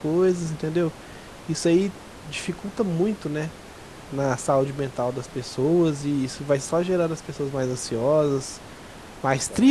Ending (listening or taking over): listening